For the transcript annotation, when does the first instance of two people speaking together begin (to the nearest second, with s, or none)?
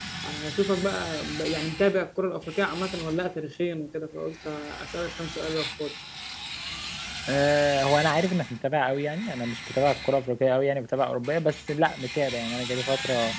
none